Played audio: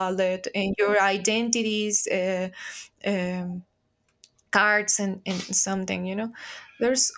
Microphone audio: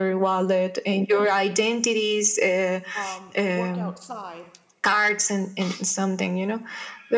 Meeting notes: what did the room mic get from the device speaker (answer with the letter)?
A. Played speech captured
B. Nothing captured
A